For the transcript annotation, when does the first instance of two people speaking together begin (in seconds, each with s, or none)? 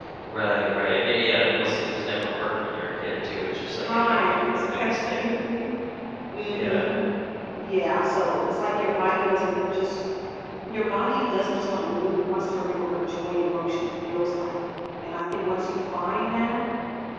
3.7 s